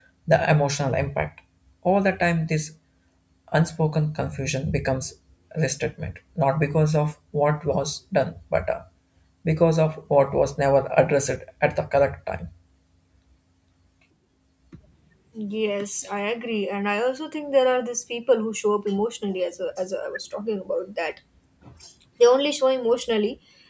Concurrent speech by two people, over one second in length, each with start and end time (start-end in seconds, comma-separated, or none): none